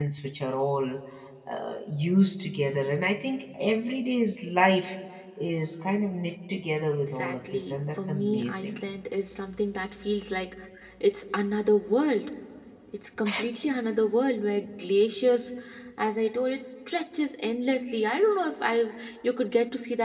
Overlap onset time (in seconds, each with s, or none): 7.2 s